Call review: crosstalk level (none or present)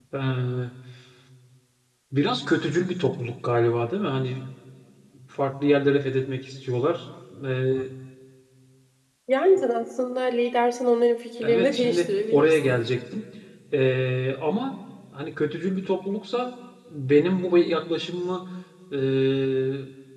present